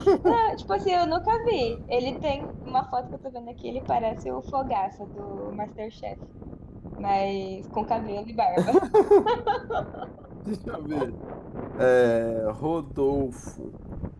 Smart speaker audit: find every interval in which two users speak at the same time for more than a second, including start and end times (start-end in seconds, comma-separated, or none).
none